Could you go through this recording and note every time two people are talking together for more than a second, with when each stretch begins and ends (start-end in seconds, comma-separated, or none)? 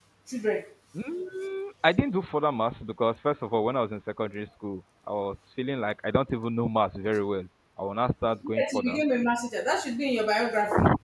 none